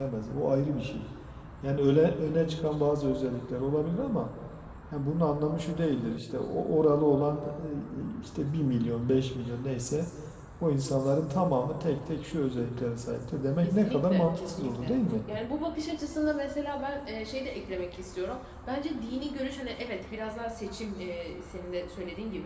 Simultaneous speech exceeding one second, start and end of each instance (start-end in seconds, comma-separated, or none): 13.6-14.9